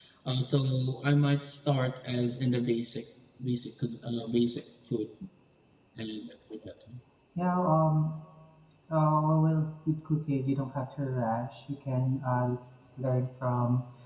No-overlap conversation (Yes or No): Yes